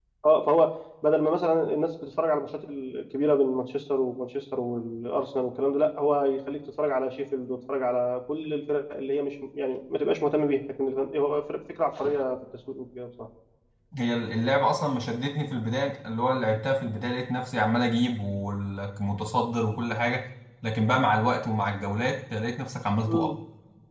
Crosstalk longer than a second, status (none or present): none